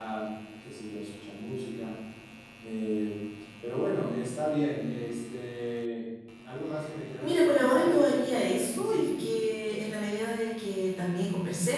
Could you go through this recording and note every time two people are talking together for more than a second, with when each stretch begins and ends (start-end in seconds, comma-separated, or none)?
7.2-9.2